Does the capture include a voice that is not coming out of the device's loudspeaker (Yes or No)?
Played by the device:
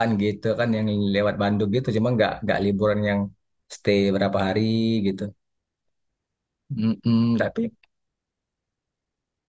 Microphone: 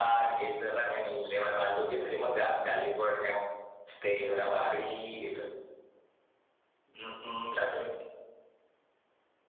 Yes